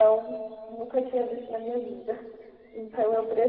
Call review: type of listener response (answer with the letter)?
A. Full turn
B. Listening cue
B